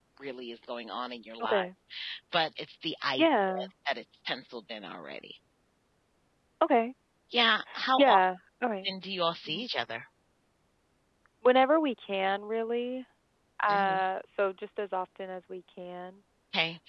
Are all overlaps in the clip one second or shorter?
Yes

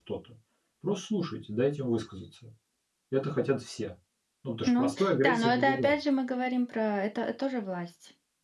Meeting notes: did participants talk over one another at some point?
Yes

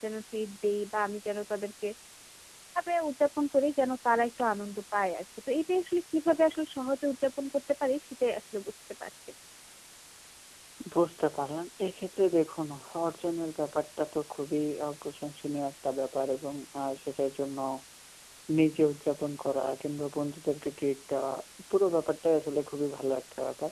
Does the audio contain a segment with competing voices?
No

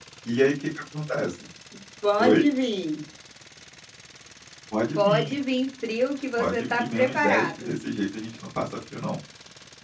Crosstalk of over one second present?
Yes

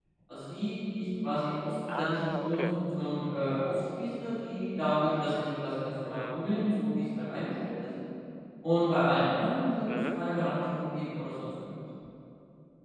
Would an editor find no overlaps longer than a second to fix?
No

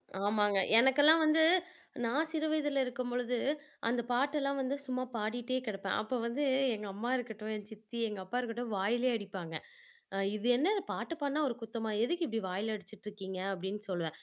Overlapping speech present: No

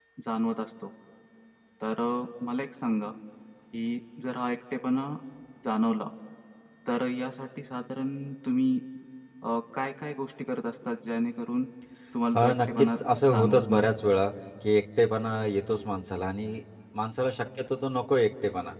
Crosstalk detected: Yes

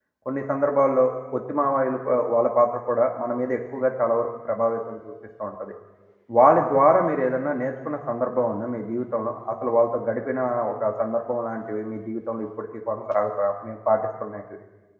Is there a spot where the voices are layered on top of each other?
No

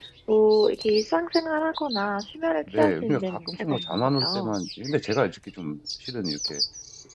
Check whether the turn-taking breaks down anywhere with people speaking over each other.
Yes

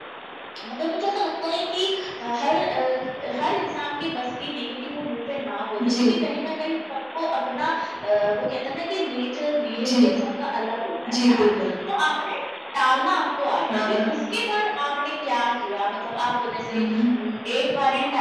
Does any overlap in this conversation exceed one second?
No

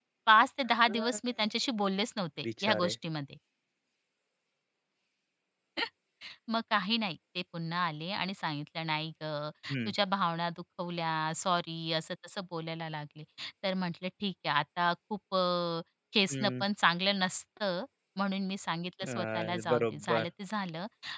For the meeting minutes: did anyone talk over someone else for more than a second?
Yes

